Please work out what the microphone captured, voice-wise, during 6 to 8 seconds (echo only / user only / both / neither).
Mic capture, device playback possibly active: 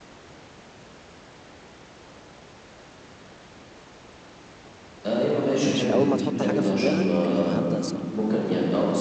both